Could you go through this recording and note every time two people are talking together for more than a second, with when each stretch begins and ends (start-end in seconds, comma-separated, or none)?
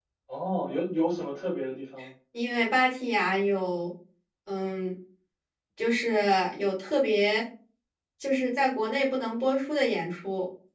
none